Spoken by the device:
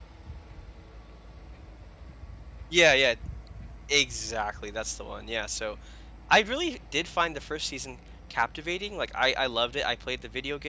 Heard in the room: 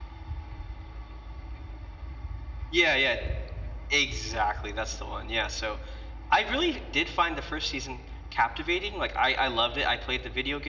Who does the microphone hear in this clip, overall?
echo only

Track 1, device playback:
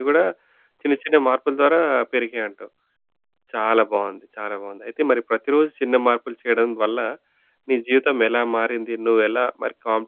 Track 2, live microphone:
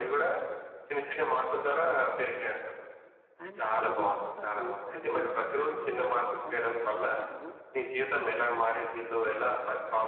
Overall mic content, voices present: both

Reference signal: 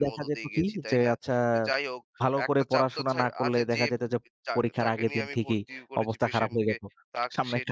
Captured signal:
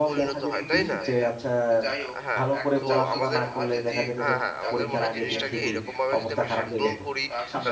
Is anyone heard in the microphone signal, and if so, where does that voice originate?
both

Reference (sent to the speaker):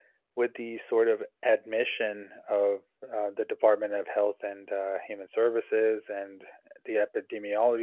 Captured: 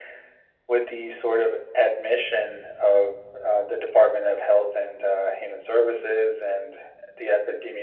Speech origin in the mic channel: echo only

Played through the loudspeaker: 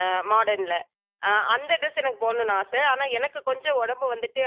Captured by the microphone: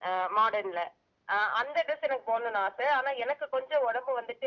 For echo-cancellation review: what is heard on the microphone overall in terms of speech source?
echo only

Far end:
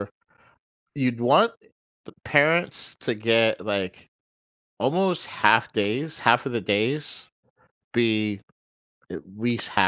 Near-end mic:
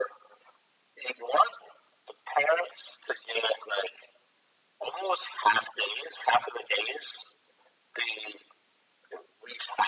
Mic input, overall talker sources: echo only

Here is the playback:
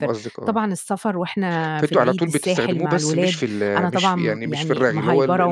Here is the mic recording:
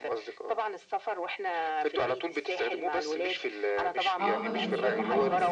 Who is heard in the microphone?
both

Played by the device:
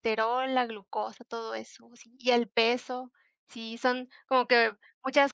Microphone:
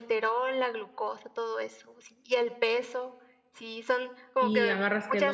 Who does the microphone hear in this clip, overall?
both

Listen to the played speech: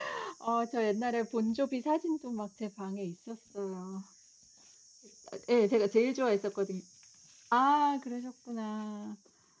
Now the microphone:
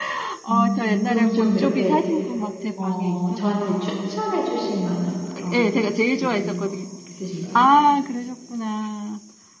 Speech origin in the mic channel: both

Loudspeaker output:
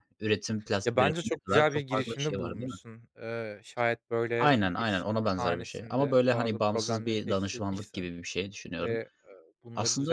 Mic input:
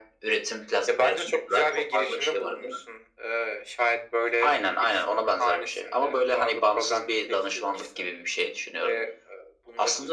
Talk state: echo only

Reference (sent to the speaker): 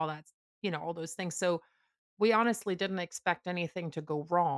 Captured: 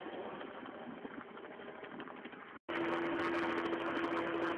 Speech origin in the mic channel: neither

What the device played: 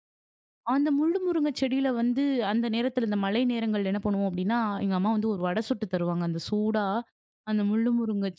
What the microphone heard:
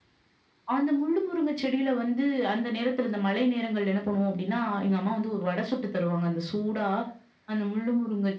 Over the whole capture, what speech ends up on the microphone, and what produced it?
echo only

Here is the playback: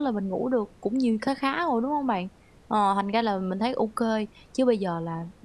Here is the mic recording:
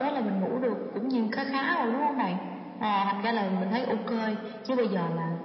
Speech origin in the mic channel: echo only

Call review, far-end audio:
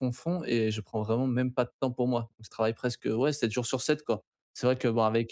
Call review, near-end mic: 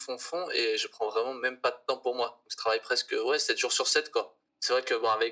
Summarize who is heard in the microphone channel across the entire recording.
echo only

